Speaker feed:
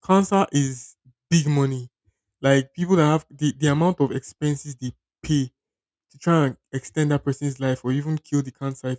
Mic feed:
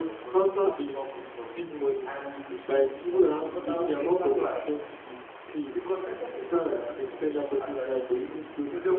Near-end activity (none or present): present